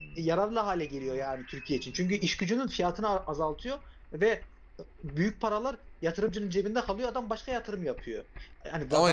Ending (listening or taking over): listening